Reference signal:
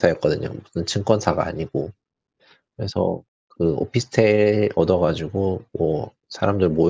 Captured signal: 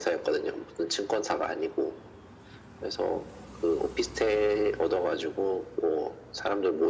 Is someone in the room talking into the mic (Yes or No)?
No